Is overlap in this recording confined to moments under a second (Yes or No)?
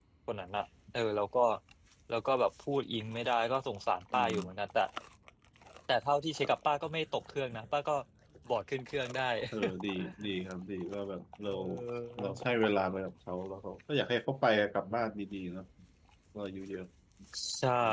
Yes